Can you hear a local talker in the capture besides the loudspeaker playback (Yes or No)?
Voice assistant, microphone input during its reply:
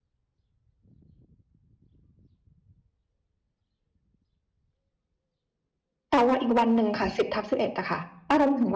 Yes